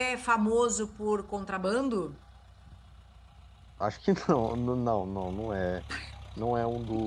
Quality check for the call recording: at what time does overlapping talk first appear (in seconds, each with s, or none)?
none